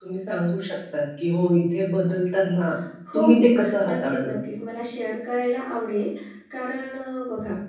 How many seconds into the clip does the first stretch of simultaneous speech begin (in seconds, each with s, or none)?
3.1 s